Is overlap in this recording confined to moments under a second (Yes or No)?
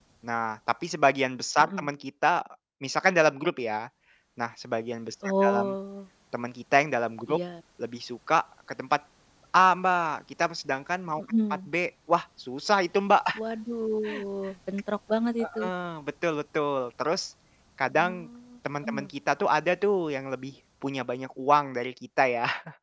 Yes